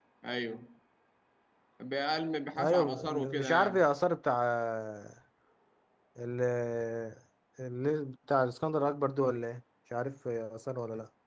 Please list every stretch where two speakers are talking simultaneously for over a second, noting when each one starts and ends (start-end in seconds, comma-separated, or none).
2.6-3.8